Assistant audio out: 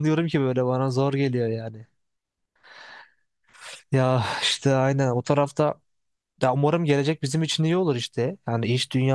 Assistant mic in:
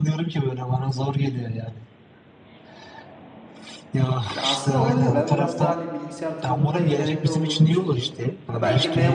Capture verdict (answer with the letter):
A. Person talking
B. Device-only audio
A